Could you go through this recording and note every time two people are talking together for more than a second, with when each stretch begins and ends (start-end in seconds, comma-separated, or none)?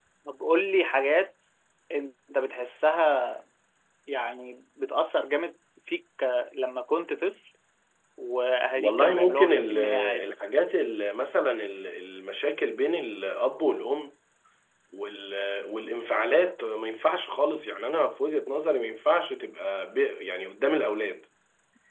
8.8-10.3